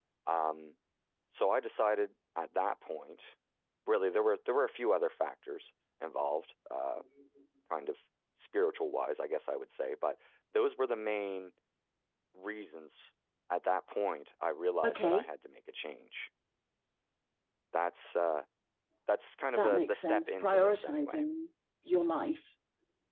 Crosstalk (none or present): present